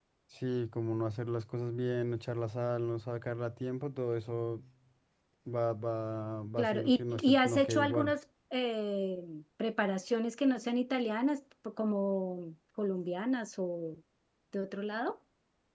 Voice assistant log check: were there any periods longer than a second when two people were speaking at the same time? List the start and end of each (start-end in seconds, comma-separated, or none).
6.6-8.2